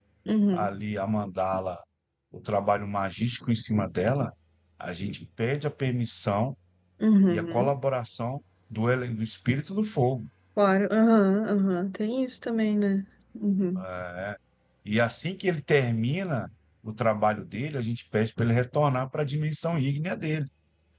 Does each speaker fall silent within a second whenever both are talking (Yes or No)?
Yes